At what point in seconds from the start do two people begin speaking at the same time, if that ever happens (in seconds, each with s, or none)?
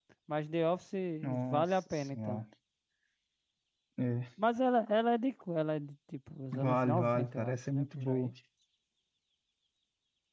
1.2 s